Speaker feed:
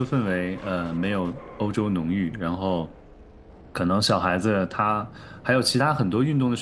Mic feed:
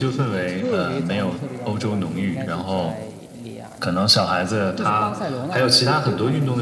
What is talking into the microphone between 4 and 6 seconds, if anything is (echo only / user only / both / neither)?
both